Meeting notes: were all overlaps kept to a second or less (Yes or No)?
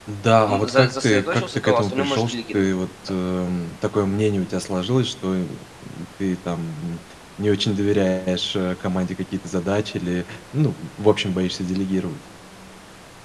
No